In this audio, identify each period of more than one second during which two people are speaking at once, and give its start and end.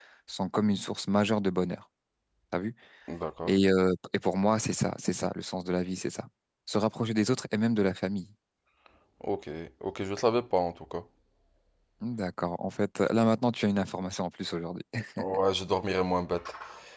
none

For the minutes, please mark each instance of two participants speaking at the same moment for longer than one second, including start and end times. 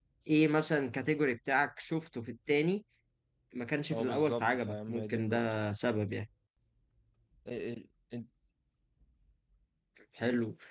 3.9-5.4

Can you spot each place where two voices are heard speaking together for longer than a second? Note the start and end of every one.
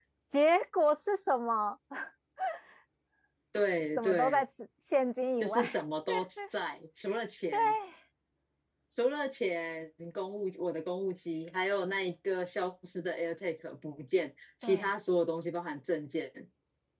none

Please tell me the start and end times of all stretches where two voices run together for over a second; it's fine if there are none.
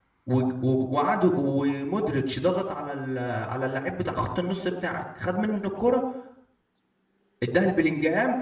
none

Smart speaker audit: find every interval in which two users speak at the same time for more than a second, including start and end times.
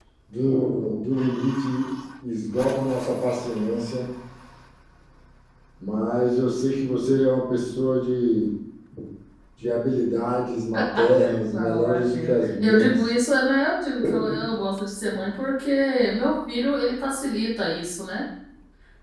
11.5-12.9

